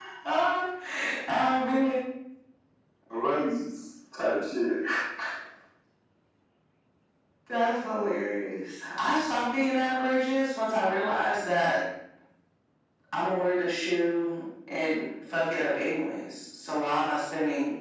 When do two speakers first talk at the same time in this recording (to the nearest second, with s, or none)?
none